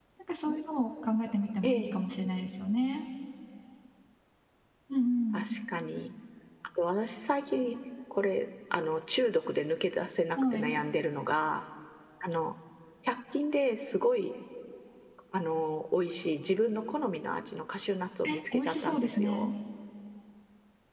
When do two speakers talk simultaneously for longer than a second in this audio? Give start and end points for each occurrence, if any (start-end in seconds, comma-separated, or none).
18.2-19.5